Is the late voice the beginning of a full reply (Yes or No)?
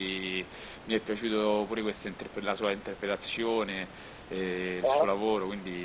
No